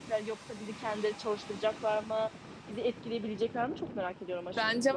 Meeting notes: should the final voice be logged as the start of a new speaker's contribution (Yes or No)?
Yes